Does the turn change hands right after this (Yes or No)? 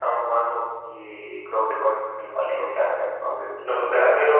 Yes